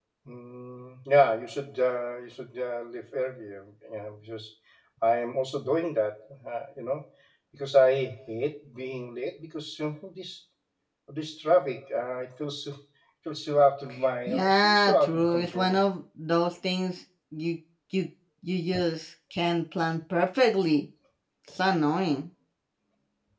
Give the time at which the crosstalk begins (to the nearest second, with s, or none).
14 s